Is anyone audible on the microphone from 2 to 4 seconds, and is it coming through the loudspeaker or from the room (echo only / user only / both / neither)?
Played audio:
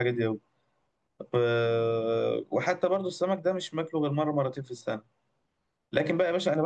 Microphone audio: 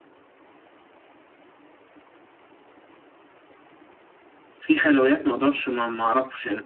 neither